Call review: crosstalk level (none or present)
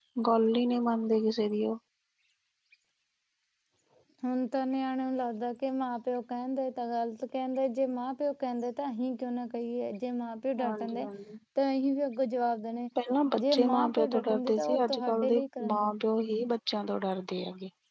present